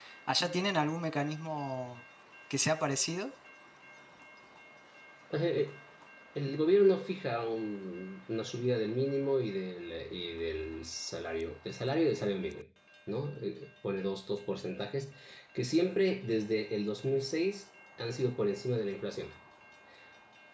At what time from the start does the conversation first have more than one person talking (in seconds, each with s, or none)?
none